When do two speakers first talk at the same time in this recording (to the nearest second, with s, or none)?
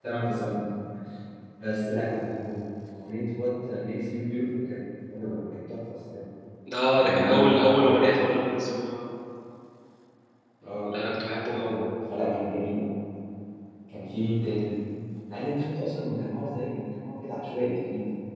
7 s